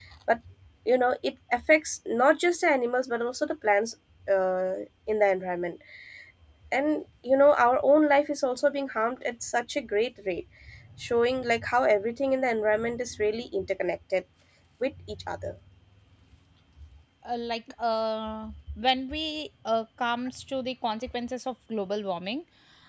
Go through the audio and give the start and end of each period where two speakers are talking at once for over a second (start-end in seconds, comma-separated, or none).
none